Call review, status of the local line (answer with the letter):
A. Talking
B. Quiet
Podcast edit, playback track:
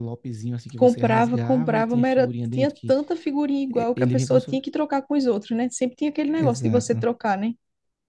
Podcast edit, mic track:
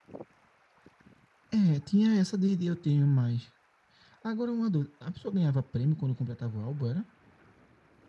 A